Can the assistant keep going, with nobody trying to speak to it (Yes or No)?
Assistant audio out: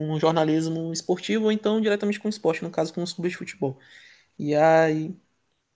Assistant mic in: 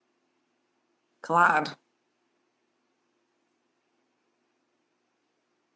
No